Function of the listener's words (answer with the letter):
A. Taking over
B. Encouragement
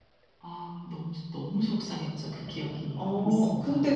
A